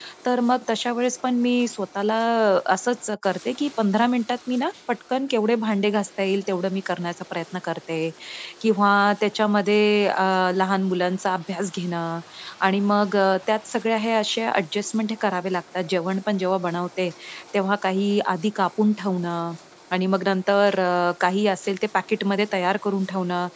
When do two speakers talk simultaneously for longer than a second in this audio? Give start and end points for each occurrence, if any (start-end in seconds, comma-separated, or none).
none